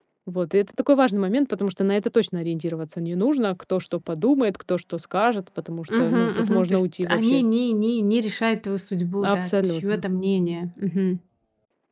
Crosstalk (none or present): present